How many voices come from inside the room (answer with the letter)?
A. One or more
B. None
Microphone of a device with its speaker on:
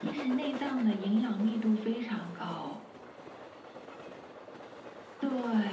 B